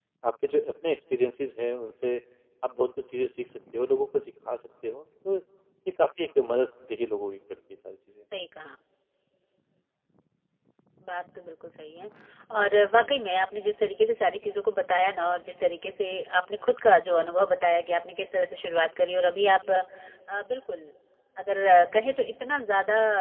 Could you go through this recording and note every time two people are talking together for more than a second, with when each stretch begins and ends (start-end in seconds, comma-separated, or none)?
none